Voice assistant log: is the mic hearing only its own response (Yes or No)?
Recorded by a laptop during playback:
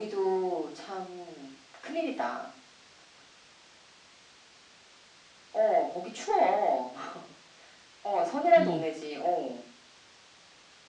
No